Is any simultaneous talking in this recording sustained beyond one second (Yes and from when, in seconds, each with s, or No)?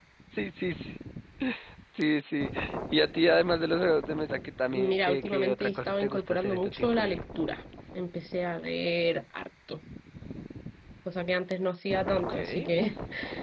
Yes, from 4.7 s